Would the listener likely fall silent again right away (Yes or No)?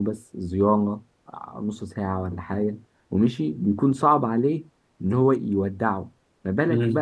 Yes